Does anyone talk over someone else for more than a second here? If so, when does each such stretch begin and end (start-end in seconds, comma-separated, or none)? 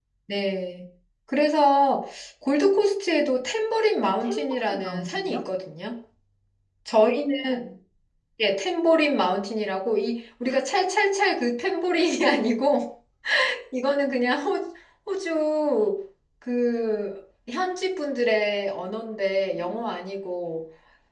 4.0-5.4